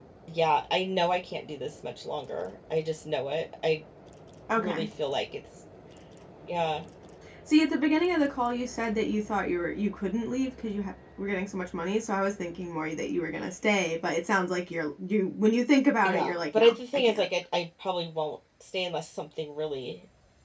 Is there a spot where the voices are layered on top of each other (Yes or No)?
Yes